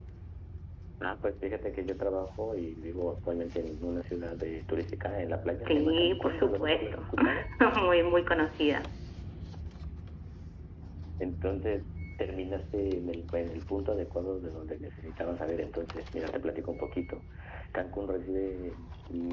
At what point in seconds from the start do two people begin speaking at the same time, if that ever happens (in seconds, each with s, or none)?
5.6 s